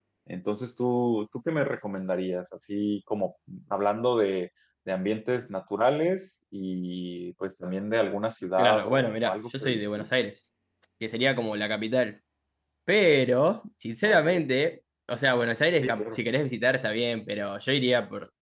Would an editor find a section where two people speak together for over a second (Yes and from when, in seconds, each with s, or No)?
Yes, from 8.6 s